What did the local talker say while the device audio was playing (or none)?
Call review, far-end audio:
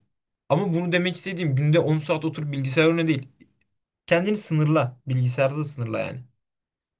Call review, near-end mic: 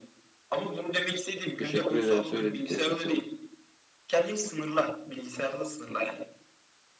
teşekkür ederim söylediklerin için,